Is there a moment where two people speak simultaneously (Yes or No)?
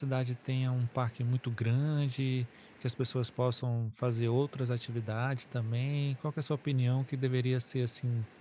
No